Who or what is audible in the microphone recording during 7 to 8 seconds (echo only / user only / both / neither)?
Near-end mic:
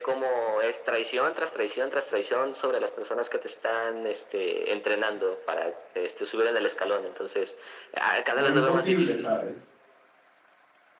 echo only